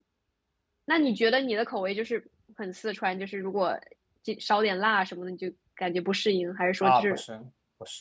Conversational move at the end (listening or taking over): taking over